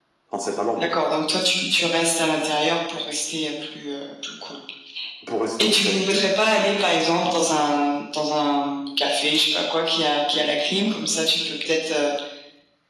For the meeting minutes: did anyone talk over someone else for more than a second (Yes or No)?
No